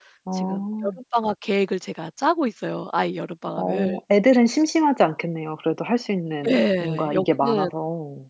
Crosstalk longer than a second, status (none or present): present